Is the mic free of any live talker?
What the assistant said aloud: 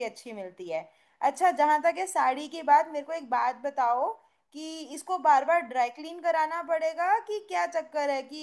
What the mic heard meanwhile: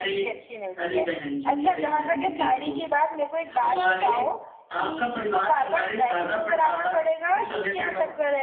No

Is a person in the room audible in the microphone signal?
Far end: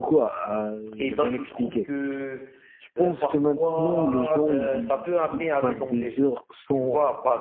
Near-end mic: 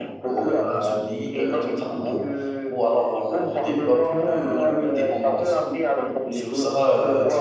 Yes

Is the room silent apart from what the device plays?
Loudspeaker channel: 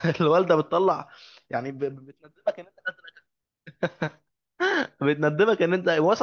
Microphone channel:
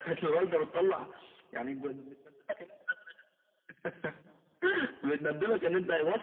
Yes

